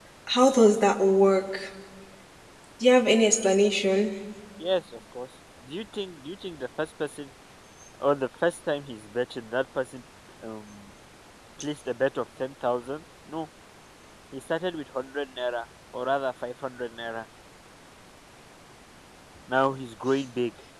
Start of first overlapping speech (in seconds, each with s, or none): none